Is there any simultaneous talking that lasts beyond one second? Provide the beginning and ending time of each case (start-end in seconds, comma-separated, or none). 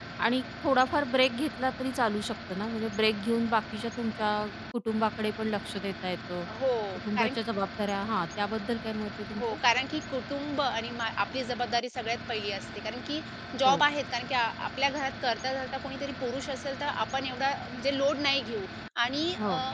none